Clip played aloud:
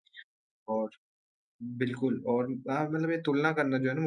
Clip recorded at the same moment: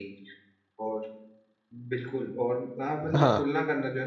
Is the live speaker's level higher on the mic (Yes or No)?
Yes